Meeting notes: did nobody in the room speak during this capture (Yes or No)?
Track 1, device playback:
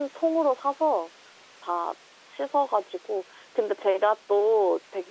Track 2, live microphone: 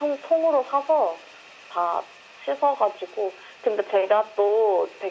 Yes